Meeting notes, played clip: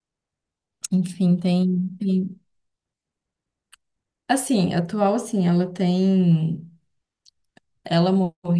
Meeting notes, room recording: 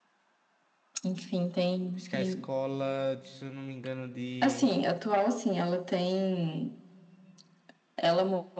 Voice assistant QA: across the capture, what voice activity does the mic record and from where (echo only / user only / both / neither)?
both